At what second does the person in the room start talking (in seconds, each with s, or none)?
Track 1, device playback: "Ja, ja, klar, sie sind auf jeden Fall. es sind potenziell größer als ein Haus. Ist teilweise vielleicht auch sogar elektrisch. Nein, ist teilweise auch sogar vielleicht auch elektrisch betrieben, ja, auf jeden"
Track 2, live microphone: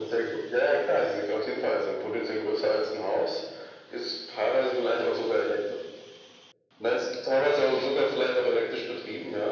none